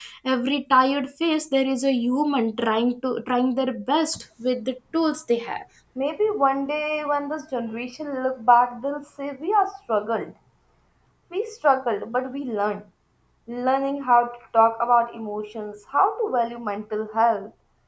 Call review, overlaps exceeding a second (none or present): none